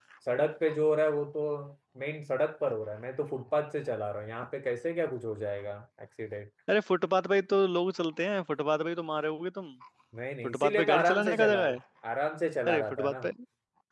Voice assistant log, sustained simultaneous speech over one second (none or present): present